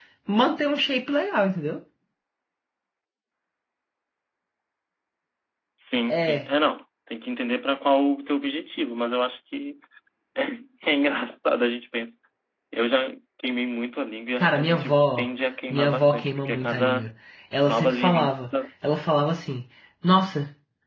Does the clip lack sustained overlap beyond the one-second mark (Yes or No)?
No